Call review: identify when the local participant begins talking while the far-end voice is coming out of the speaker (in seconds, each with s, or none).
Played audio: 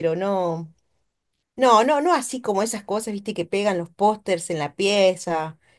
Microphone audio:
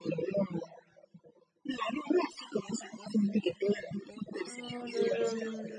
4.4 s